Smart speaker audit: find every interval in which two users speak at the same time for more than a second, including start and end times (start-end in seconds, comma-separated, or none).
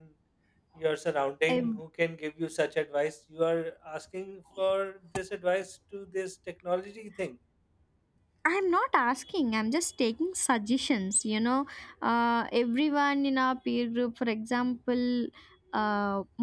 none